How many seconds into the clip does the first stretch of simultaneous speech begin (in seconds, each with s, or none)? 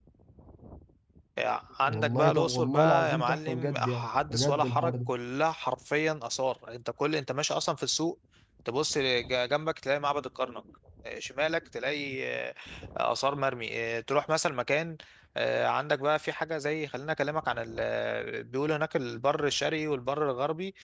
1.9 s